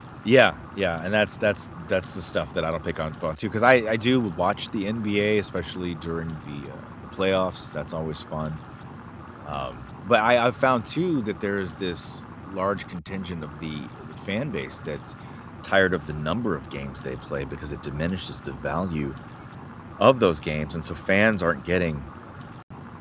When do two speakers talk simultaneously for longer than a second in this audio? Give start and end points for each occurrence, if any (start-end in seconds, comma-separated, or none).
none